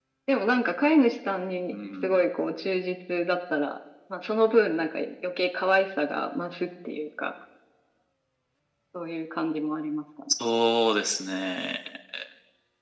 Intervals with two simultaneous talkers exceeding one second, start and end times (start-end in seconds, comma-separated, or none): none